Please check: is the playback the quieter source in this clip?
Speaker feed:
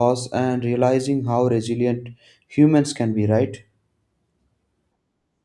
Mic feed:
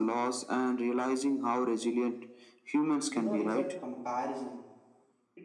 No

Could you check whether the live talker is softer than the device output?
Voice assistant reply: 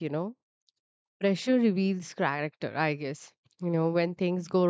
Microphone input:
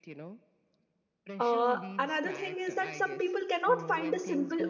No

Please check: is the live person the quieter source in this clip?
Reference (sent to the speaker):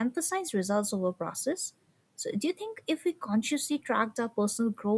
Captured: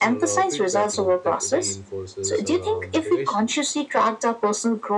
Yes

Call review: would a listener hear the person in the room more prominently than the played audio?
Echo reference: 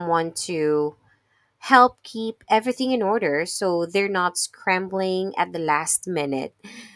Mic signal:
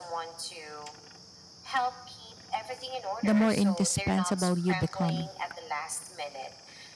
Yes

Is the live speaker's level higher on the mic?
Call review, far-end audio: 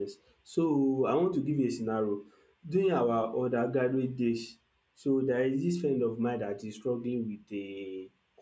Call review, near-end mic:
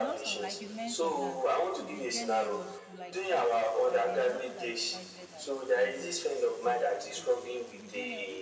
No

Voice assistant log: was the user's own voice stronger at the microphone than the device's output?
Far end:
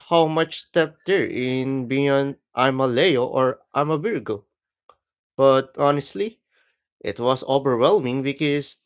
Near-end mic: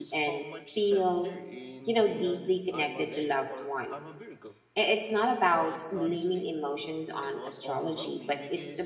Yes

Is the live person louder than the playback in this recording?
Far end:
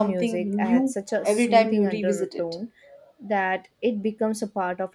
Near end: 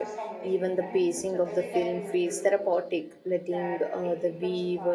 Yes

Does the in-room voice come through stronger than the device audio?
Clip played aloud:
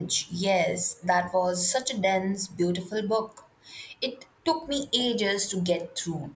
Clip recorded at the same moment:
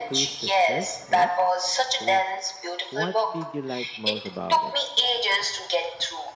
No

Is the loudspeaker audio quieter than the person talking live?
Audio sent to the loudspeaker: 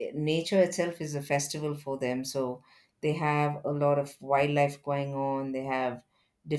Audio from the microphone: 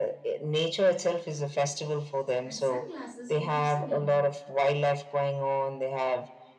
No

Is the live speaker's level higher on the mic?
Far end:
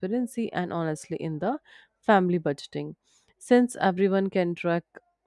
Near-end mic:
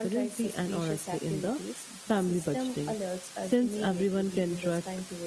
No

